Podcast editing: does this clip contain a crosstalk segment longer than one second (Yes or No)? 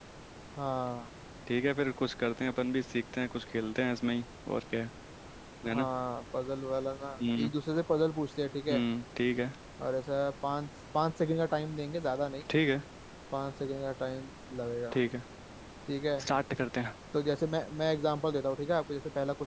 No